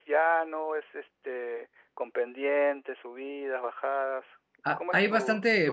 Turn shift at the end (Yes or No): Yes